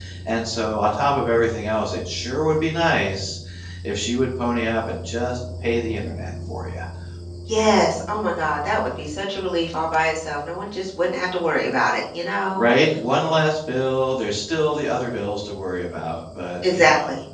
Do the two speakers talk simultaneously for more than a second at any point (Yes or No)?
No